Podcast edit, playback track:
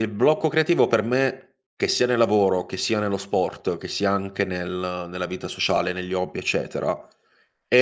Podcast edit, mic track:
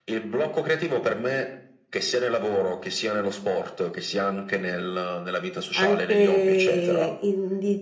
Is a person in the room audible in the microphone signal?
Yes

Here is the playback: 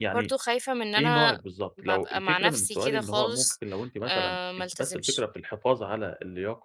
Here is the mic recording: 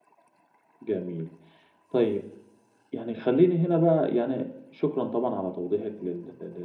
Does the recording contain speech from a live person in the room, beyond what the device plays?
Yes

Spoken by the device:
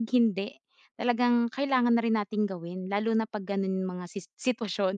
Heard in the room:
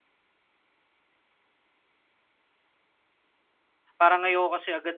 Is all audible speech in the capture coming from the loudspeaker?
No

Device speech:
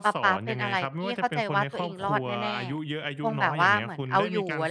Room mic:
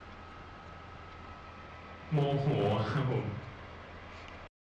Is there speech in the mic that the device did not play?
Yes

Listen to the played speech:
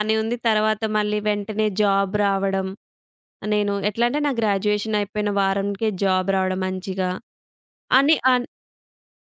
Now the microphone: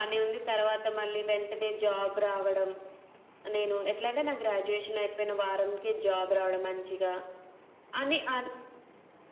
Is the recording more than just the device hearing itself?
No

